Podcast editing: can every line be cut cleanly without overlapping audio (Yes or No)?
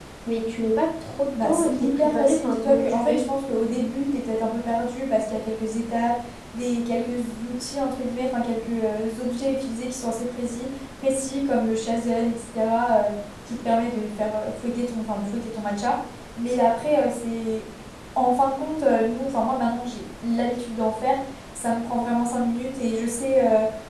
No